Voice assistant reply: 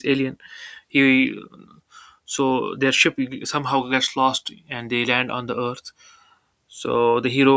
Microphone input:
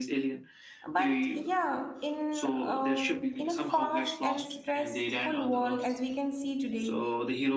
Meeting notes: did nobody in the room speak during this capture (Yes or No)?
No